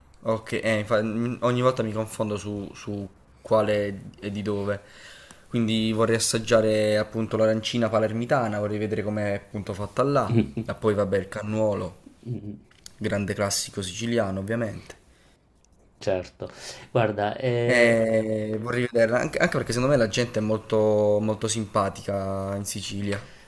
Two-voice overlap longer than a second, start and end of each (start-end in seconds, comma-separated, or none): none